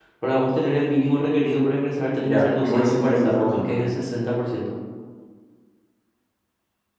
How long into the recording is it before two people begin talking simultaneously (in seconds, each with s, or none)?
2.2 s